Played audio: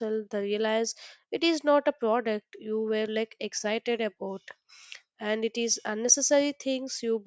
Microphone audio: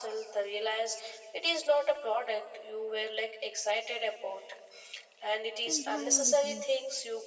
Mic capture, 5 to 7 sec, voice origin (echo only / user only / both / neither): both